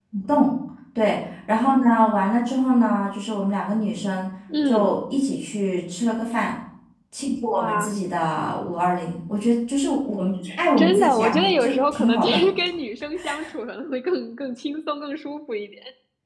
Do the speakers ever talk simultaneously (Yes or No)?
Yes